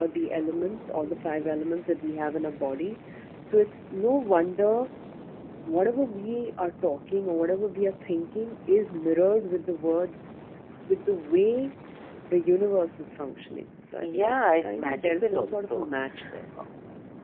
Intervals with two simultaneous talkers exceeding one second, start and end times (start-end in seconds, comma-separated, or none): 14.0-15.9